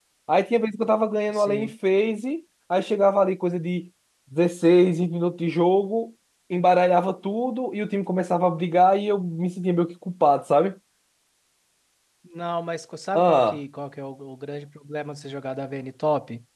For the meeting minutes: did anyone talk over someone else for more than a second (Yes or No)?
No